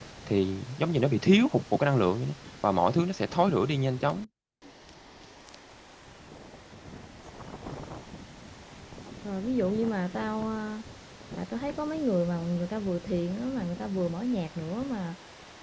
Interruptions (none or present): none